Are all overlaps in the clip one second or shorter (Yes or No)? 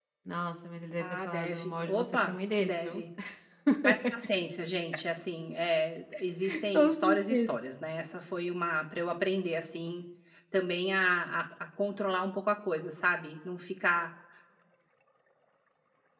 No